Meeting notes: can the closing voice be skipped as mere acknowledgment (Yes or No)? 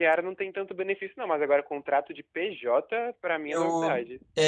No